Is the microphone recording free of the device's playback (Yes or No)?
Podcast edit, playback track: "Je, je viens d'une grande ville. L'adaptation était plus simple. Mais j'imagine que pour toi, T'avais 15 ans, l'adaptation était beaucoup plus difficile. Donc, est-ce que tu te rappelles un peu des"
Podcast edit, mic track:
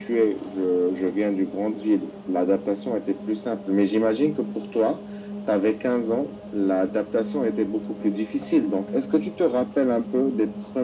No